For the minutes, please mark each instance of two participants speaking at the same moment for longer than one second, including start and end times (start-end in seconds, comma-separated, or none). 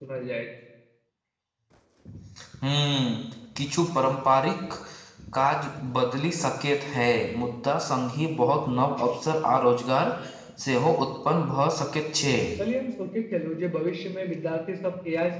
none